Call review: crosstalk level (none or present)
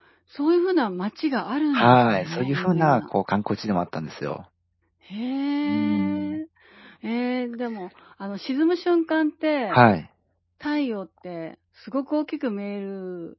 present